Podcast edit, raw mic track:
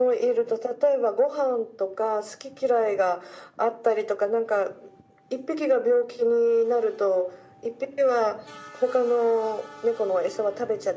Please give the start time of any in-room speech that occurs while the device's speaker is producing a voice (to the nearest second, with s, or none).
none